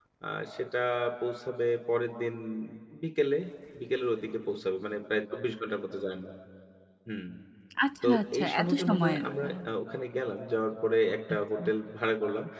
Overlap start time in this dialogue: 8.0 s

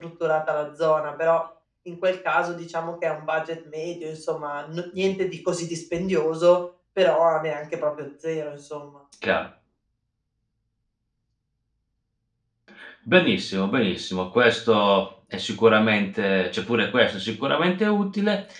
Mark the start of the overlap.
none

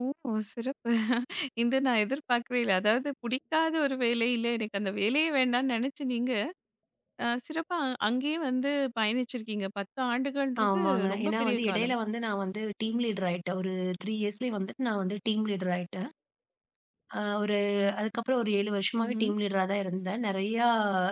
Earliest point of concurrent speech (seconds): 10.7 s

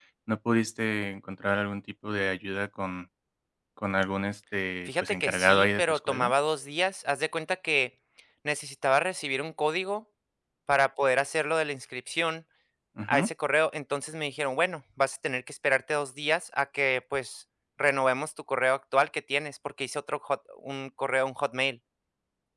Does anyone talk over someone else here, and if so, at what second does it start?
4.9 s

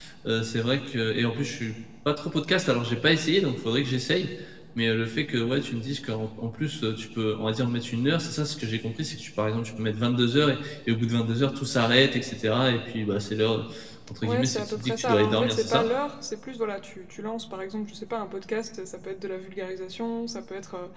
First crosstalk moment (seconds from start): 14.2 s

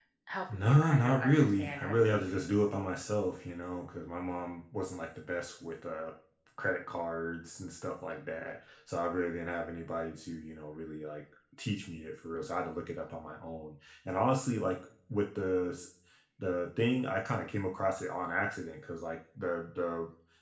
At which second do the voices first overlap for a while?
0.5 s

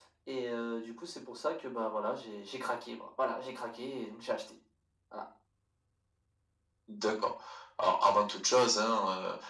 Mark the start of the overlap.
none

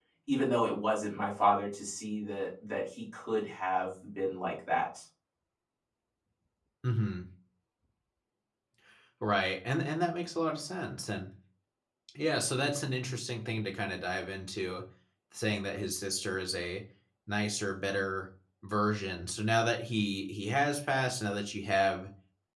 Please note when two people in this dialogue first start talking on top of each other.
none

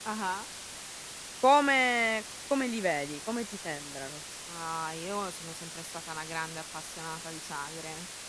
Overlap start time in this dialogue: none

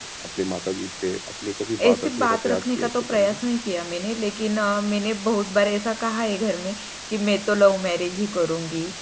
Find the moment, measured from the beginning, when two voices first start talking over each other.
1.8 s

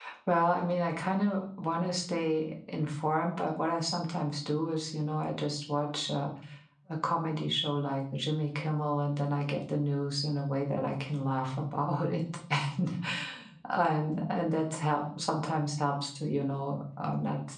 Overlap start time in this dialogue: none

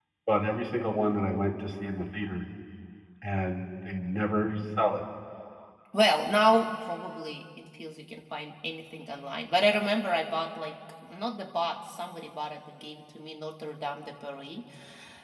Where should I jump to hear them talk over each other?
none

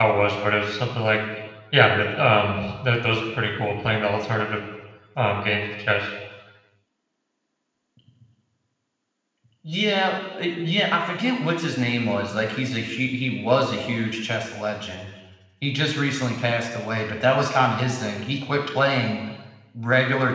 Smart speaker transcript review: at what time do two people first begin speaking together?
none

